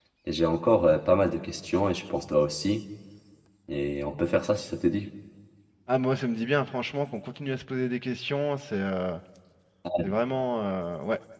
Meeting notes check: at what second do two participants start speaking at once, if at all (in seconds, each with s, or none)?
none